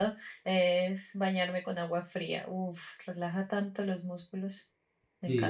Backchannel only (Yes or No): No